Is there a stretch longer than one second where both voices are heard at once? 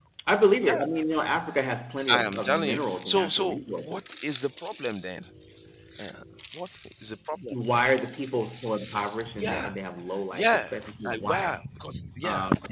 Yes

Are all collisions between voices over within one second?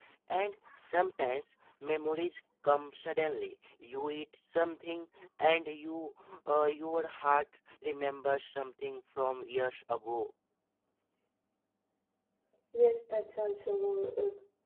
Yes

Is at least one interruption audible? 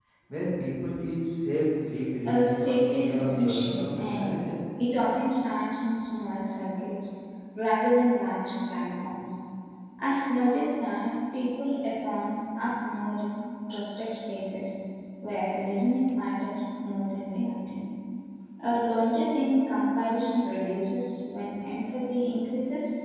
Yes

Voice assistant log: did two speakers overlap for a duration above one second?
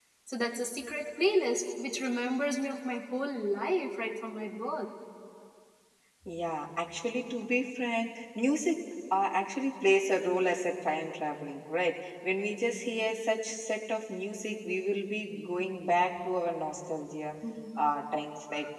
No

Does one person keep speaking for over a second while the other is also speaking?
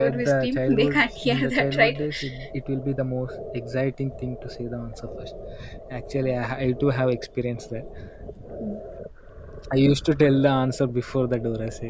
Yes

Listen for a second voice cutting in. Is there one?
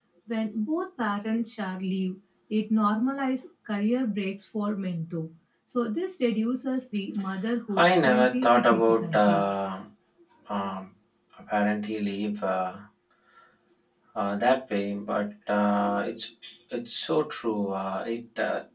Yes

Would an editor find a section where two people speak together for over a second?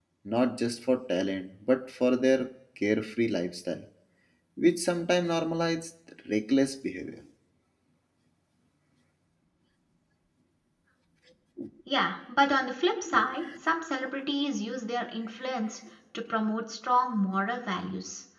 No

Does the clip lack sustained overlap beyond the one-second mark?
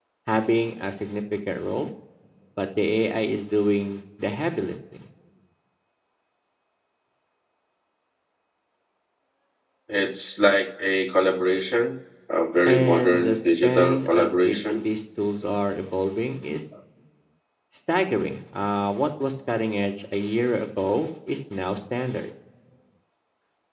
No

